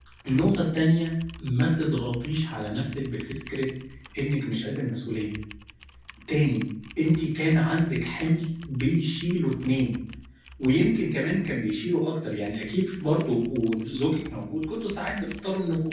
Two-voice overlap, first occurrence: none

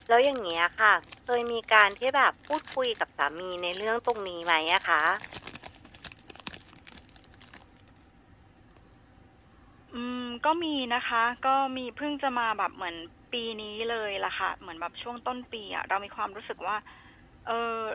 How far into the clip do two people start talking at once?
none

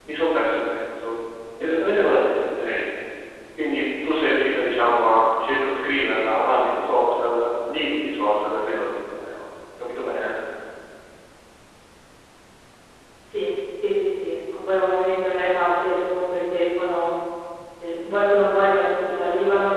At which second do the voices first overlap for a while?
none

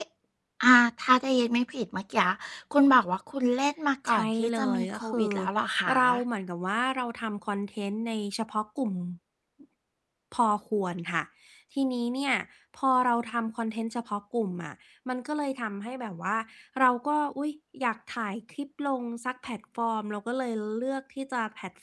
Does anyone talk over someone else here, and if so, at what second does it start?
4.1 s

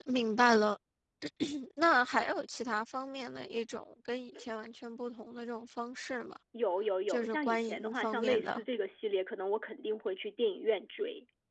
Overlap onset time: 7.1 s

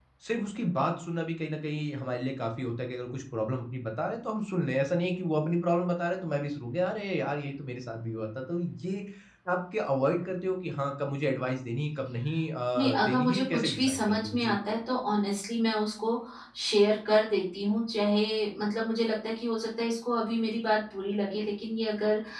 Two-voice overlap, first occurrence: 12.7 s

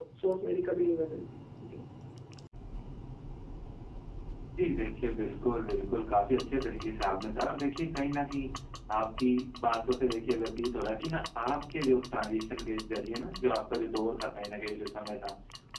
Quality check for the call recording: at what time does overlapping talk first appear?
none

